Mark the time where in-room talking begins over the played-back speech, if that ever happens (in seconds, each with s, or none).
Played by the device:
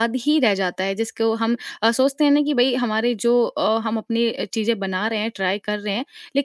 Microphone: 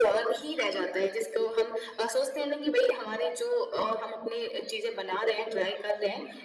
none